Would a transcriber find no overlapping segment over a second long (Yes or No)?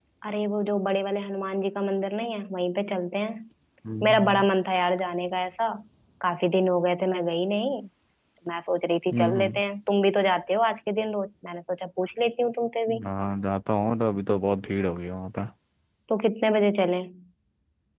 Yes